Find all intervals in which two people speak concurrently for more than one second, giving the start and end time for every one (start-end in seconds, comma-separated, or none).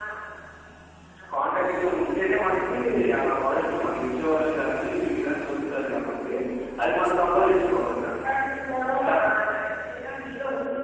none